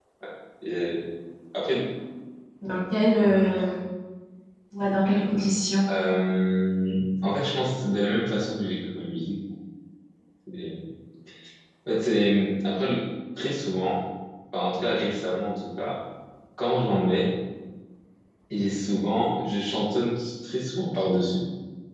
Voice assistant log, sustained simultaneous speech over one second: none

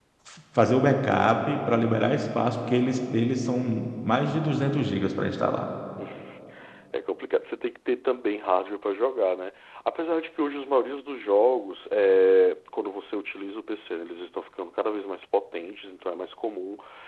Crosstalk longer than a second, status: none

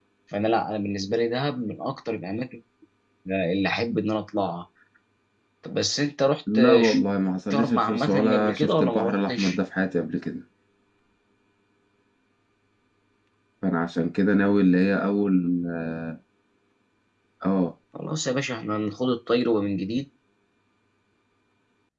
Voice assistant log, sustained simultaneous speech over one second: present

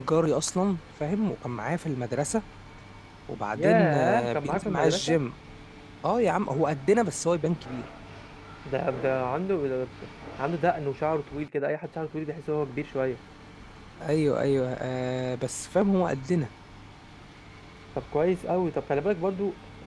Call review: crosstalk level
present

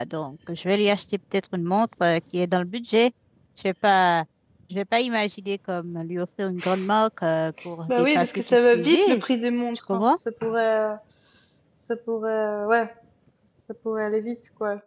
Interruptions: present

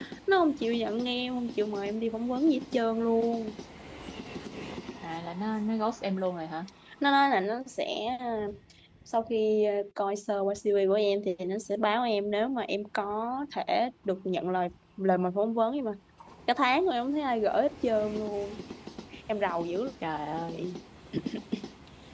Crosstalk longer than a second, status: none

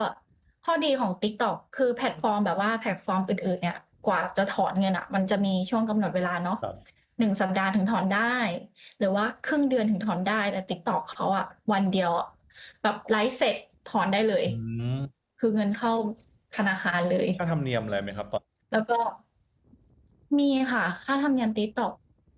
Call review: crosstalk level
none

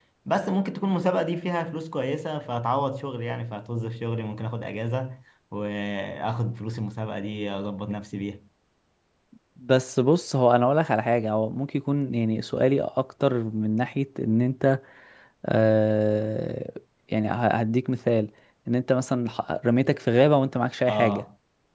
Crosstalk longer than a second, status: none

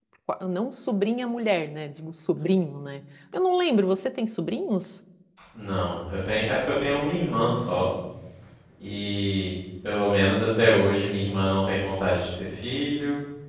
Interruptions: none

